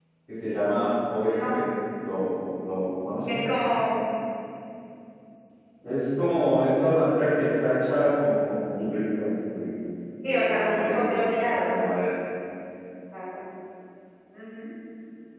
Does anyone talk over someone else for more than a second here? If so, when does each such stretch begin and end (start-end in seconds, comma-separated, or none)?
10.2-11.7